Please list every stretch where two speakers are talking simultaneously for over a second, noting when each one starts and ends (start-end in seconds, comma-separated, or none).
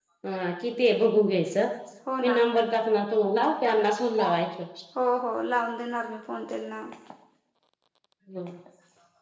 none